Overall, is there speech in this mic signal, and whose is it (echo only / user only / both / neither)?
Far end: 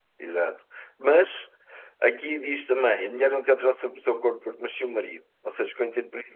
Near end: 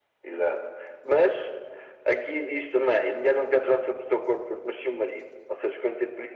echo only